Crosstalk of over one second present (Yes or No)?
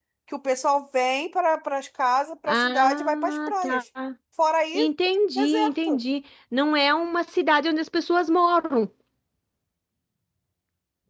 Yes